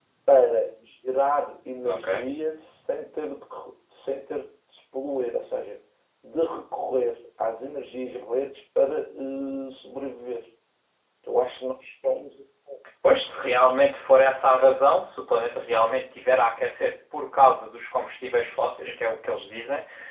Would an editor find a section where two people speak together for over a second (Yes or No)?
No